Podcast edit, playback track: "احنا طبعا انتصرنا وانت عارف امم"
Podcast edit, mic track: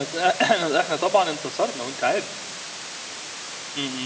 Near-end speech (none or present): none